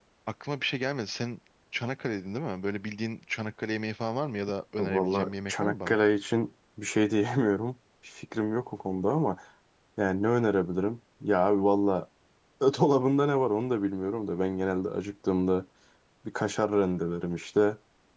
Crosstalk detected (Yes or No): Yes